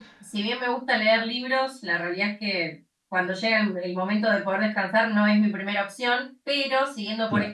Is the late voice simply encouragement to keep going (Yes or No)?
Yes